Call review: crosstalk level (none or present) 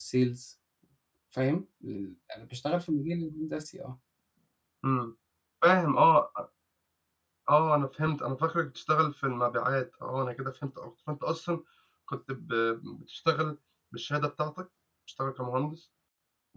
none